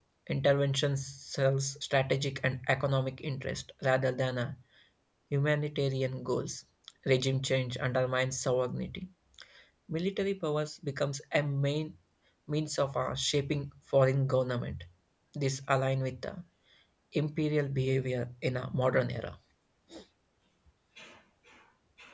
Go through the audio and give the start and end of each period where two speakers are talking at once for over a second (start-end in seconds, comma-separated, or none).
none